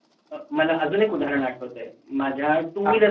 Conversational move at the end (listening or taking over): listening